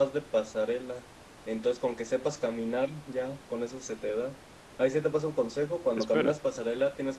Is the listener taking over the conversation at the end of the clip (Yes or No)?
No